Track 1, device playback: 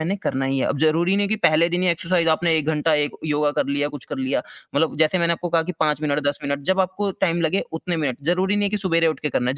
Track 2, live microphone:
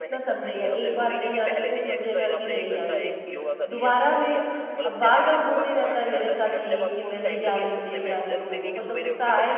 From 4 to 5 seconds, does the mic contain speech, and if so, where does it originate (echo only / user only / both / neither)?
both